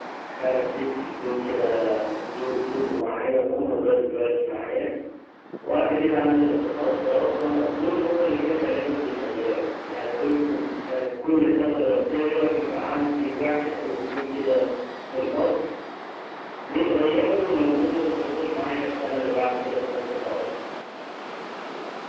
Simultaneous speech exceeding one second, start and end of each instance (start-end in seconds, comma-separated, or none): none